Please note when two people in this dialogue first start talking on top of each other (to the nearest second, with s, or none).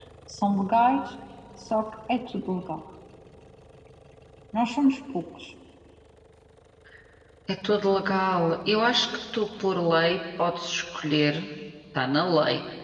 none